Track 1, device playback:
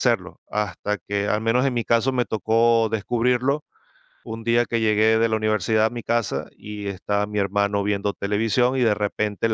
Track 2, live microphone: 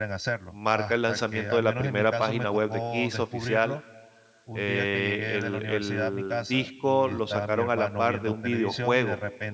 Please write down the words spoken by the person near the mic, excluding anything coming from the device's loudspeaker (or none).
marca el lanzamiento de la primera página web de Kiss oficial. Eh, el el disco lo sacaron a la par de un videojuego